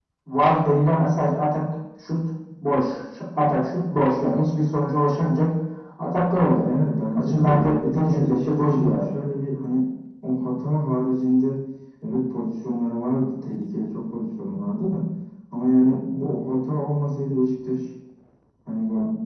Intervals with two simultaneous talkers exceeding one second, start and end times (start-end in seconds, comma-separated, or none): 7.1-9.1